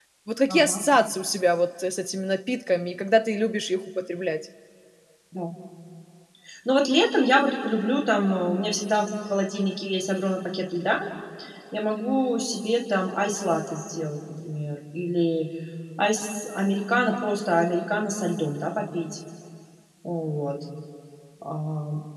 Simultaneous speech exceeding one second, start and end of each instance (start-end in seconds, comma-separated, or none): none